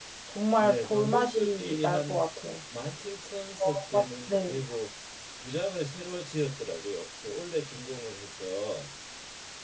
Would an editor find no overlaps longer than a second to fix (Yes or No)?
No